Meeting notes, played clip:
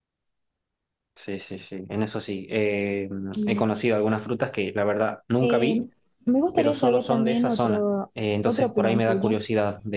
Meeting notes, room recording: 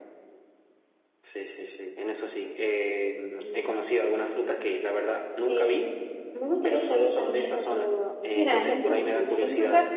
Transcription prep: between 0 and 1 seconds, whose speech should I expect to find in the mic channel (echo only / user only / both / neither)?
neither